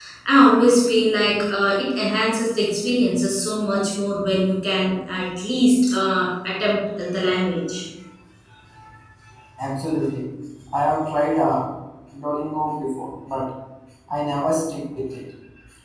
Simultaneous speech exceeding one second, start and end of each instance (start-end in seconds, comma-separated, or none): none